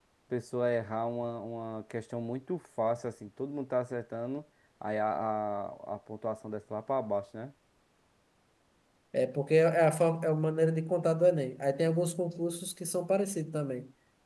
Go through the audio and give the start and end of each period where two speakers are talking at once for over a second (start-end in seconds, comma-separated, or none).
none